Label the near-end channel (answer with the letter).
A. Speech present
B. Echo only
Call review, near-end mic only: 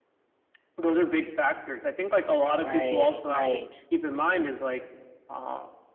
A